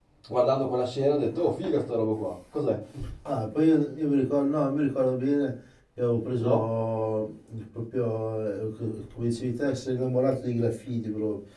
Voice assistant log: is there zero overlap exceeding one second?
Yes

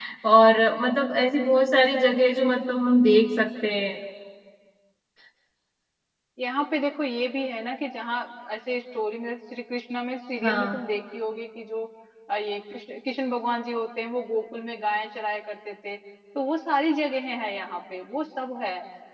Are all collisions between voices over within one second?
Yes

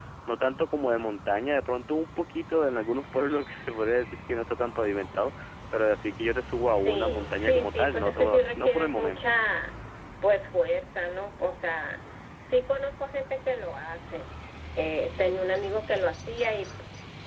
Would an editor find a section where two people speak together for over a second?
Yes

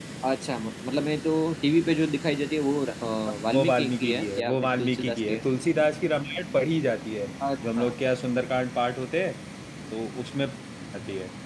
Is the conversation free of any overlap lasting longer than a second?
No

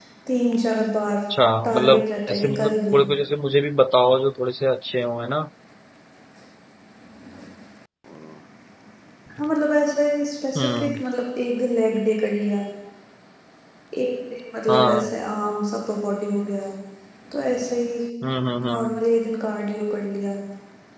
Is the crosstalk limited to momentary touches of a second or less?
No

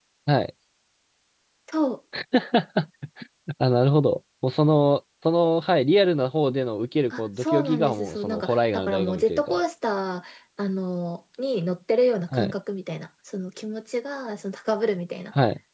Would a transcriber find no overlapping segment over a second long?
No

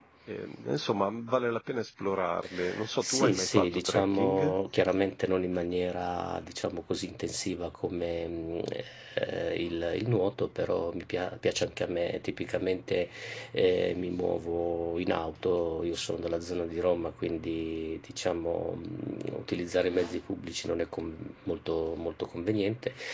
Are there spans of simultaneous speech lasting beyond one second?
Yes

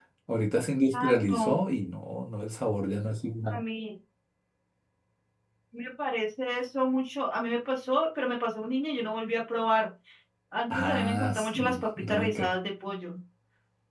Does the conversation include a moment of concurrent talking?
Yes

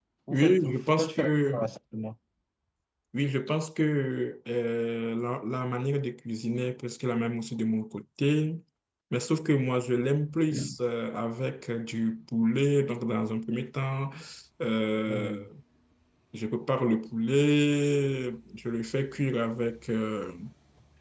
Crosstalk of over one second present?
Yes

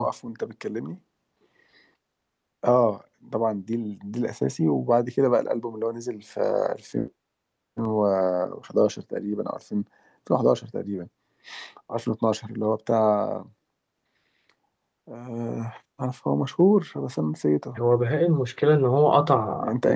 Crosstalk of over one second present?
No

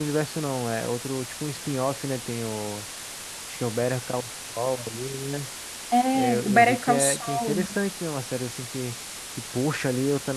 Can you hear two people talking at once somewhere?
Yes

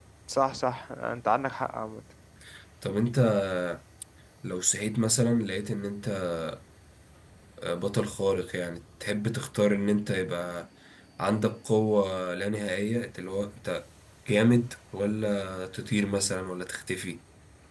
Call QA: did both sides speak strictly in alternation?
Yes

